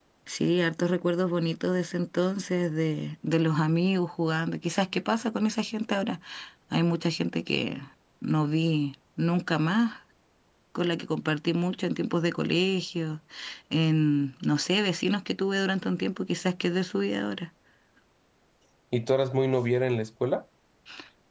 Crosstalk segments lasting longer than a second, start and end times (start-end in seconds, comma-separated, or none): none